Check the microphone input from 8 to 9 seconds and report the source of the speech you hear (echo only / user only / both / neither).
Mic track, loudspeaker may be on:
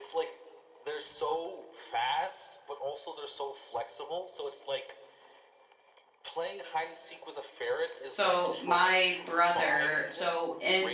both